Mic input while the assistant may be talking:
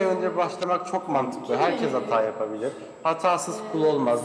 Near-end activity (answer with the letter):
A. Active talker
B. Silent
A